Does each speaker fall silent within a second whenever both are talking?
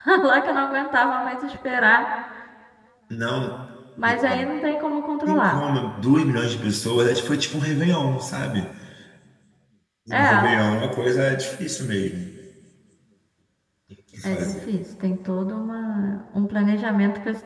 Yes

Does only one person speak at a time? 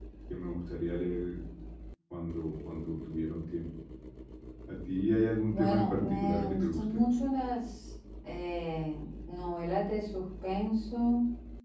No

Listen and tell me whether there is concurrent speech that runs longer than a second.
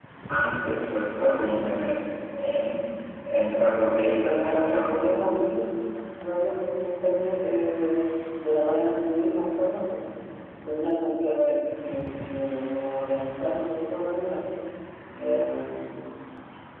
Yes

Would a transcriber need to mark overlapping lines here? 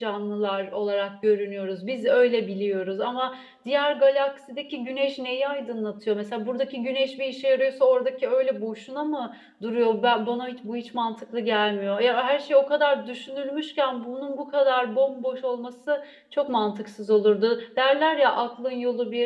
No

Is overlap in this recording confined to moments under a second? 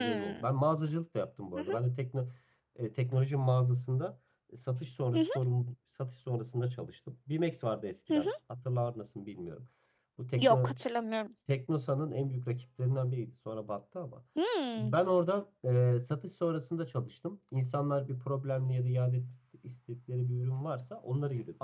Yes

